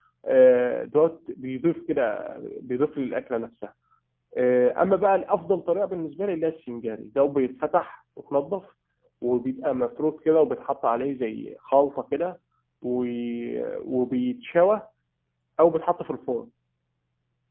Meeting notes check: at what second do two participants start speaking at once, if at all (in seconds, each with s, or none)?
none